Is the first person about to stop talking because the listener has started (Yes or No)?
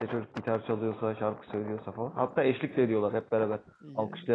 No